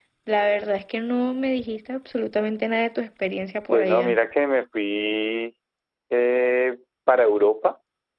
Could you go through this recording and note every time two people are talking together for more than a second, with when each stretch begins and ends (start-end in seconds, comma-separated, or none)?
none